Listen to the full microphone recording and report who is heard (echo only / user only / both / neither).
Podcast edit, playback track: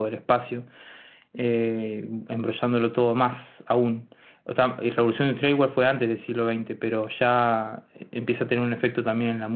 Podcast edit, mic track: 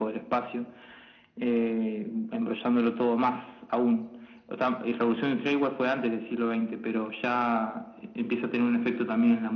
echo only